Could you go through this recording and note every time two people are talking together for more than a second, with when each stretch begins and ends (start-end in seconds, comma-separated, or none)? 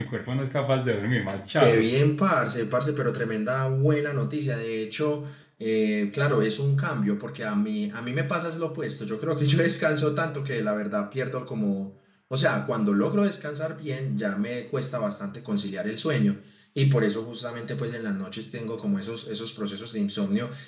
none